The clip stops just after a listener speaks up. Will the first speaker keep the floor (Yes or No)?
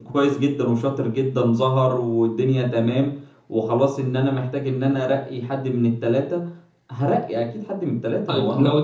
No